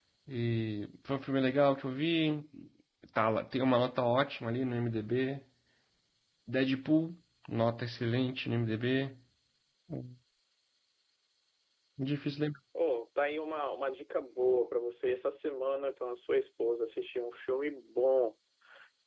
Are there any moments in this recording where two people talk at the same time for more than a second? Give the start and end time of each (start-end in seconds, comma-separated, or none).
none